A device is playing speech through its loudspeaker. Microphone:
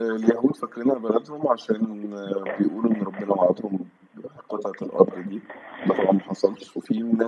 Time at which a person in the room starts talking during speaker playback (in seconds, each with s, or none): none